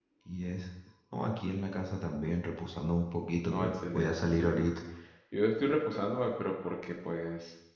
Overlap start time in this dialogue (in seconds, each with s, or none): 3.5 s